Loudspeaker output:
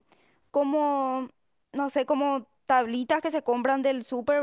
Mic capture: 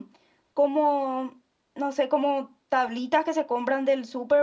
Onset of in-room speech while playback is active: none

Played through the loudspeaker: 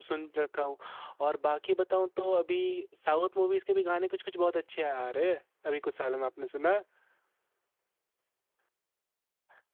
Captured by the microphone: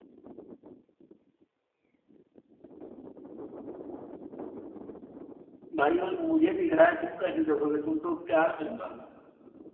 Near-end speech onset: 5.8 s

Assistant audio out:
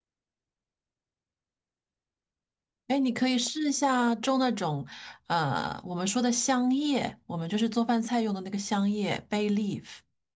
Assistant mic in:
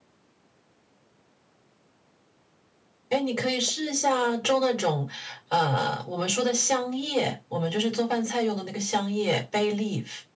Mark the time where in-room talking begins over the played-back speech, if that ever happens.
none

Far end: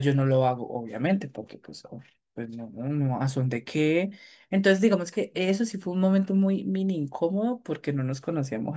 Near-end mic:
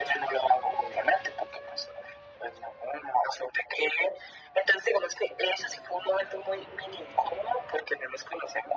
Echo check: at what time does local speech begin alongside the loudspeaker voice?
none

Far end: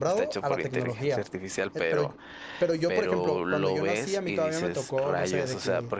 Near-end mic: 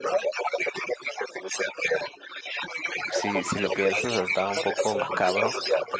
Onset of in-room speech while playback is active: 3.1 s

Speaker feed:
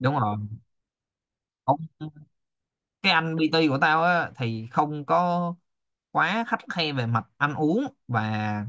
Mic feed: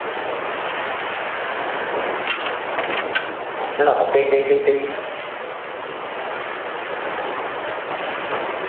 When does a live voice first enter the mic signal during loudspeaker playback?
3.8 s

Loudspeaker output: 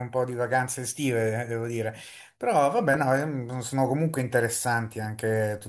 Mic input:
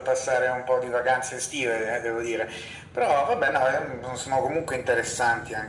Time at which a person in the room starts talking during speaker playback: none

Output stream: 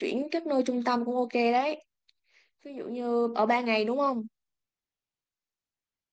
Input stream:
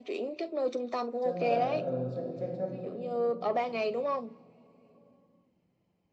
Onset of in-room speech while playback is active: 1.2 s

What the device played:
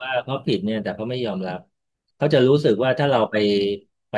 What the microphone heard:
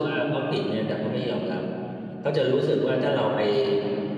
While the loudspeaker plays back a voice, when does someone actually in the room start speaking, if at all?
none

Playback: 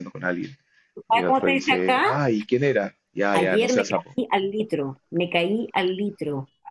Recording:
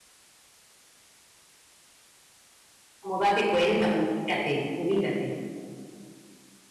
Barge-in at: 3.0 s

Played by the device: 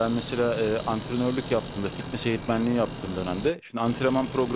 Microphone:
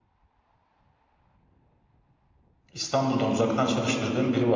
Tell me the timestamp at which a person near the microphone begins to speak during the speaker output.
2.7 s

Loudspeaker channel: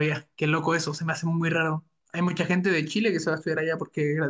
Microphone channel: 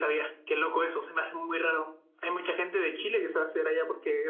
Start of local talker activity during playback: none

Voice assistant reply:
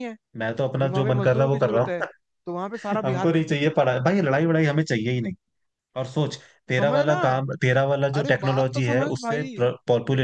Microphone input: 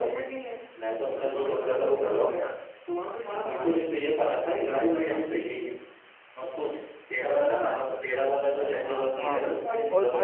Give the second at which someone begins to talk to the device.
9.2 s

